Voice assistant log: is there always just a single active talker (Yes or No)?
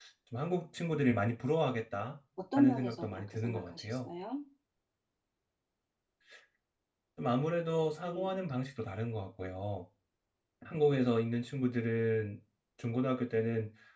No